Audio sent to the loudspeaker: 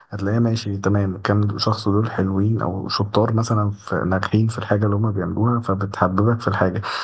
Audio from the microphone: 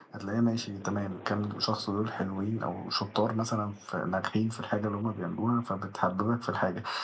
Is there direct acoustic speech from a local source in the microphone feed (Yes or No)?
No